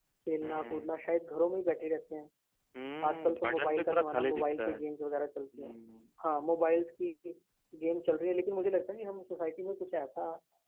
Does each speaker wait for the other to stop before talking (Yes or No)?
No